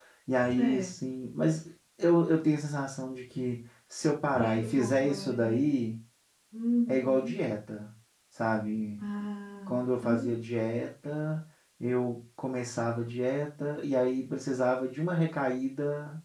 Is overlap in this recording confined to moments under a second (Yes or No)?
No